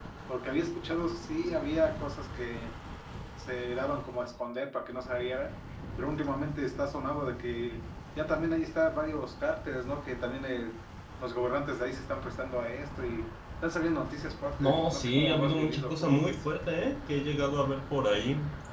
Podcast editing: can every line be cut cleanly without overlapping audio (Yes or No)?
No